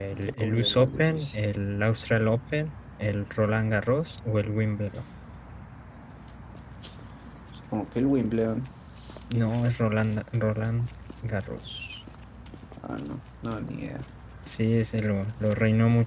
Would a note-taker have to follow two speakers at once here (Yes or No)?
Yes